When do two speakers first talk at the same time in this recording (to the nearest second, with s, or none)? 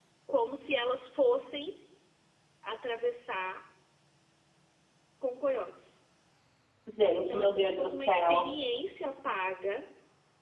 7 s